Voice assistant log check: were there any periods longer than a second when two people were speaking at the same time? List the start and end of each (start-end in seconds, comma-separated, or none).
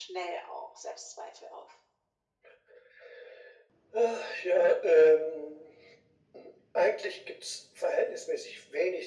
none